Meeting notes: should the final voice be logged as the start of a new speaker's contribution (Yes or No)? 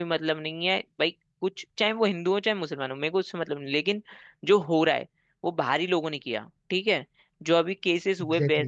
No